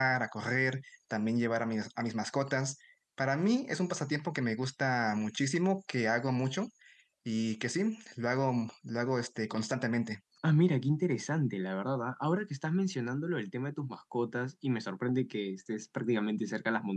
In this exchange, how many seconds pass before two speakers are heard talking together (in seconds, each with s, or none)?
none